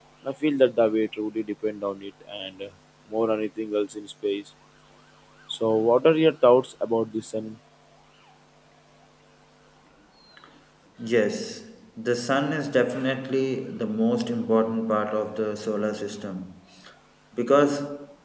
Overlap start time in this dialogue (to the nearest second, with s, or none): none